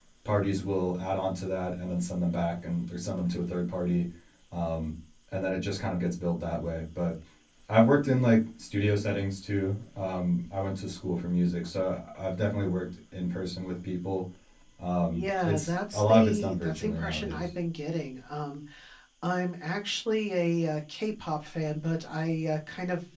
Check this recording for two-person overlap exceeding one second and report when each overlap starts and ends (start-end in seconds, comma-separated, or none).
15.1-17.5